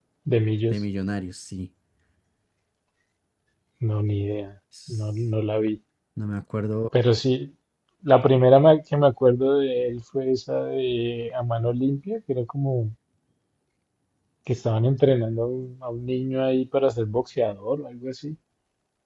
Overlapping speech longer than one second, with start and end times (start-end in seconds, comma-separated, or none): none